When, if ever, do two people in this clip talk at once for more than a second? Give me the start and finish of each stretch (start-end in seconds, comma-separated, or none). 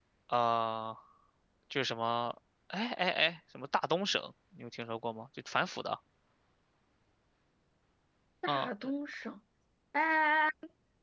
none